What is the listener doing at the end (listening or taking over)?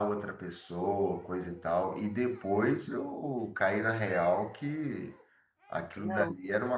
listening